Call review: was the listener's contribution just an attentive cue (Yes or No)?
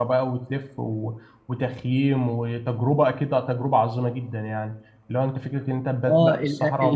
No